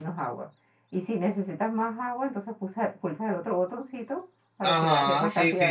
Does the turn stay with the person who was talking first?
No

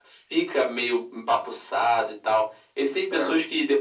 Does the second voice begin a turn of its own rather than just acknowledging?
No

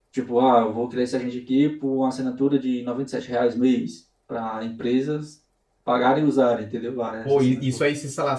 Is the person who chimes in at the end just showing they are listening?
No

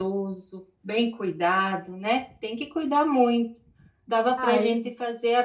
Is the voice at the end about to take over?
No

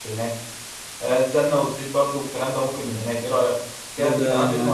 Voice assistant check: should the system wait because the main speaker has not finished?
No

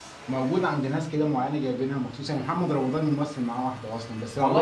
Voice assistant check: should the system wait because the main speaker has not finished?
Yes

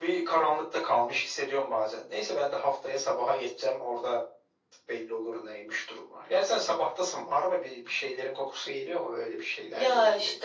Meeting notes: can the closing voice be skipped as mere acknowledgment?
No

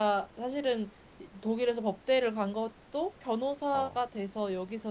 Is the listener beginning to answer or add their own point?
No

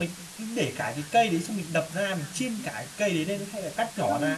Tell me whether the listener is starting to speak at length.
Yes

